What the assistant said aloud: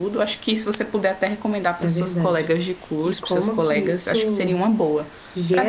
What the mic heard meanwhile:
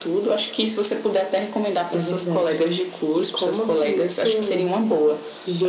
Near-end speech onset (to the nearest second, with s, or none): none